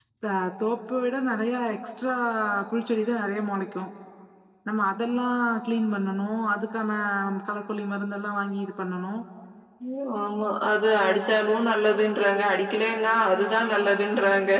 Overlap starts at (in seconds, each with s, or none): none